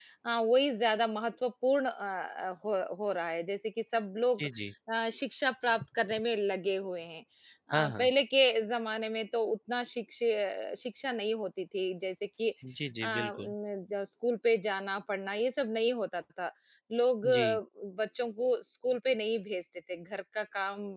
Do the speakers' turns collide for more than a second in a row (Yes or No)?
No